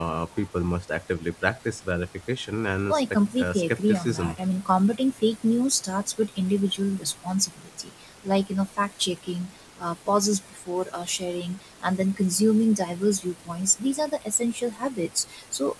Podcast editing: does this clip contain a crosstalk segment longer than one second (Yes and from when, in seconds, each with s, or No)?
Yes, from 2.9 s